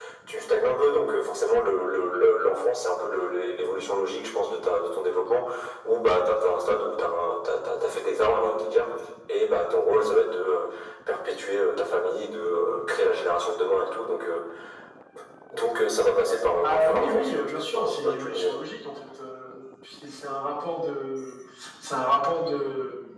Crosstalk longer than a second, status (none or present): present